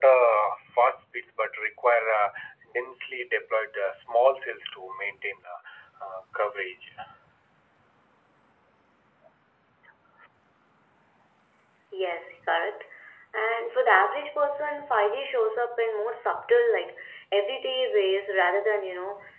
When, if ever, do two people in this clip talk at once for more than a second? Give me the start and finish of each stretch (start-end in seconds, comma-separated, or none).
none